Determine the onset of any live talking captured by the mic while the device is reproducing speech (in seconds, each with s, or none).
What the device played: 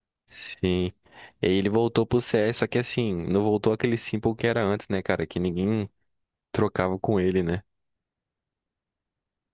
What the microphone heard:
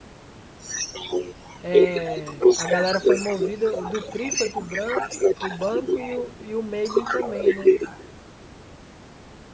1.6 s